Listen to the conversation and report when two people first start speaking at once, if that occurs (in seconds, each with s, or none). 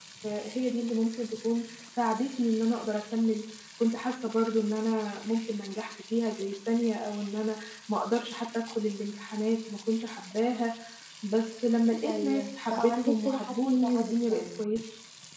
12.1 s